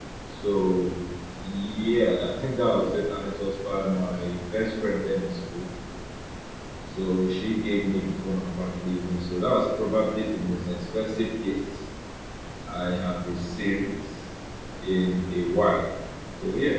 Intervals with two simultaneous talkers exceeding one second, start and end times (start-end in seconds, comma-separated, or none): none